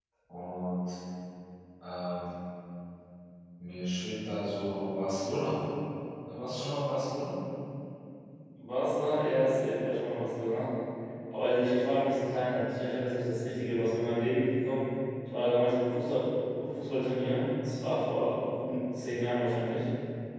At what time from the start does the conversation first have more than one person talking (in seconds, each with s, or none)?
none